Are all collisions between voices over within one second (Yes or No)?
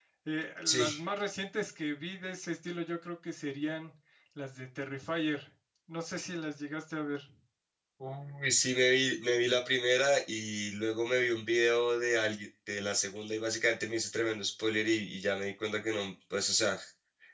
Yes